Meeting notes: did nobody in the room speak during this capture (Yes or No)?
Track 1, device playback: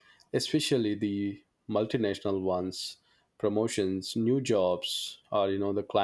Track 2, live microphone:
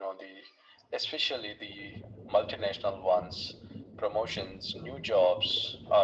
Yes